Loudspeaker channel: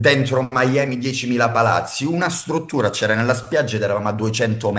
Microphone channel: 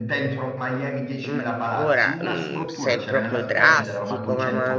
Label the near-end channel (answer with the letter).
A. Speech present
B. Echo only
A